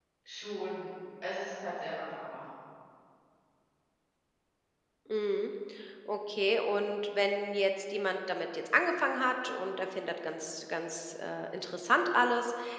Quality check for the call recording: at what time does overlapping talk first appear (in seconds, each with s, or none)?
none